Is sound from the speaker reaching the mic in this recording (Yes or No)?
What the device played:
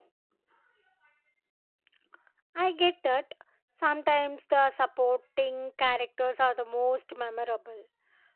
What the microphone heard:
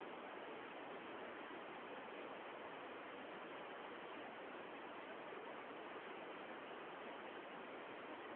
No